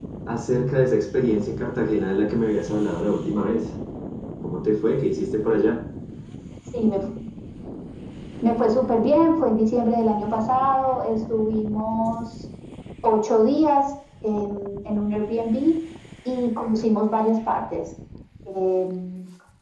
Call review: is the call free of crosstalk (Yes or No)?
Yes